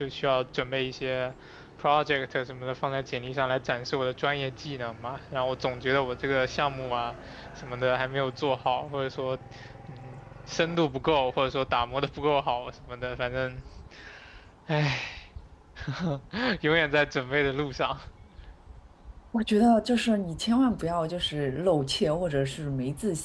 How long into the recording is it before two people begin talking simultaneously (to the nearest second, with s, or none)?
none